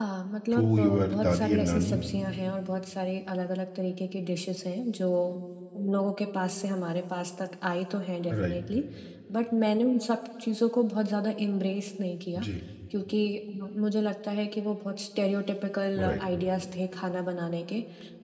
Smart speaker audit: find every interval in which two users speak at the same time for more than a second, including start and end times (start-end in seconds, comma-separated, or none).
0.5-2.0